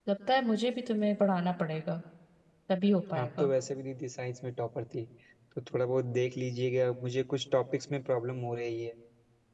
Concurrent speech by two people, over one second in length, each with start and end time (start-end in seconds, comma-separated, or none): none